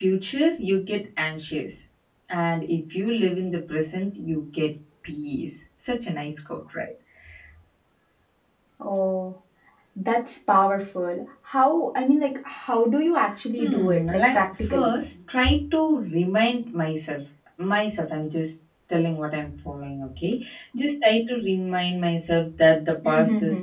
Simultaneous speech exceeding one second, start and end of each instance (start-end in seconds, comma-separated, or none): 13.6-15.0